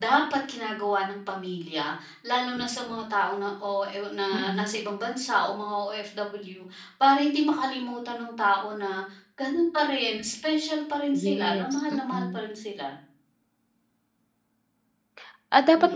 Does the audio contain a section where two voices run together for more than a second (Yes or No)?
Yes